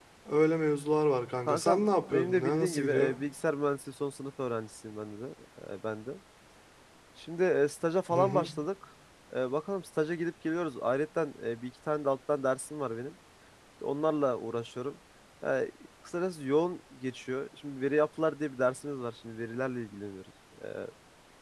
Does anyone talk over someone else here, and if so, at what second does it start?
1 s

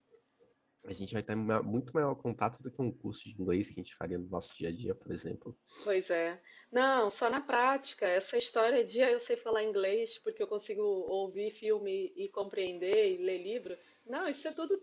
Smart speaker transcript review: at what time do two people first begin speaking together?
none

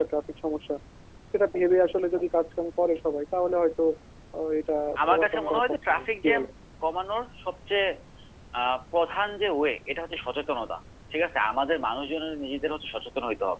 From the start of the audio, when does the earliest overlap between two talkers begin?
5 s

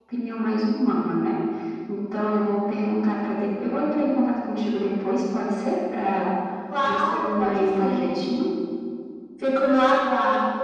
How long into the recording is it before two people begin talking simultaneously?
7 s

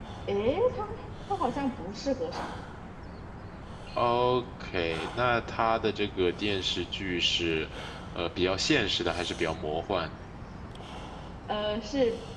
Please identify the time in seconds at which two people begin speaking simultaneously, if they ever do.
none

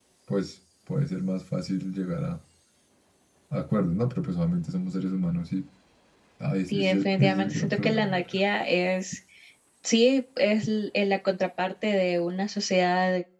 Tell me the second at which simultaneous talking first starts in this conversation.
7 s

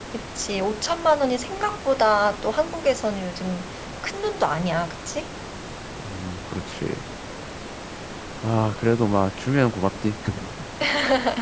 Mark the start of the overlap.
none

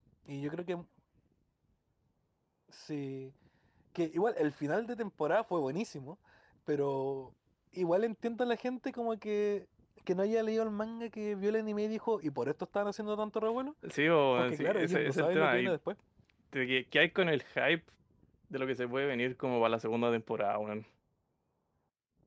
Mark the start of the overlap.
14 s

